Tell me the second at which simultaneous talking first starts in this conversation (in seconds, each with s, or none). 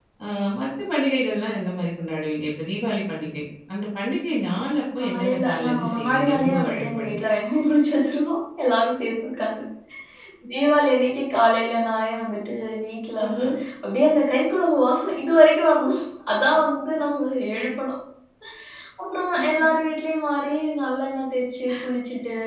5.0 s